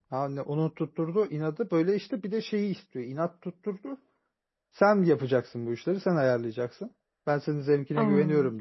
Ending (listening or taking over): listening